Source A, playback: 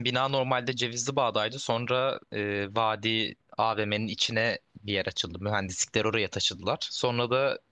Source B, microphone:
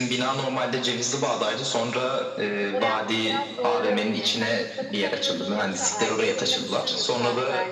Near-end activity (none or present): present